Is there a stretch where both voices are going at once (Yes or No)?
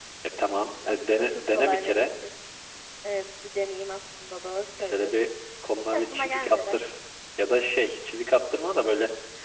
Yes